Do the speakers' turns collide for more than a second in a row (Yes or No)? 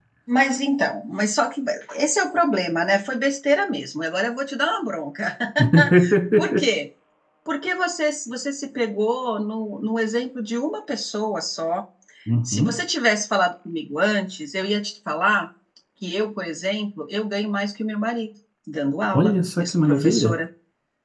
Yes